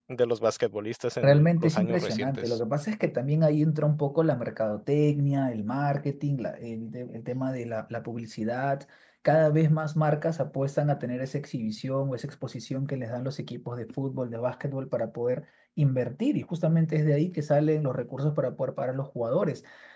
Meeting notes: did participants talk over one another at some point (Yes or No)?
Yes